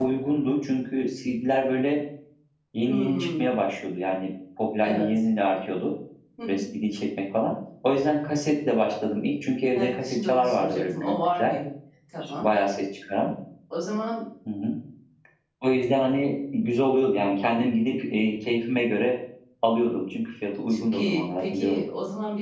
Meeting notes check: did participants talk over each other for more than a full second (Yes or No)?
Yes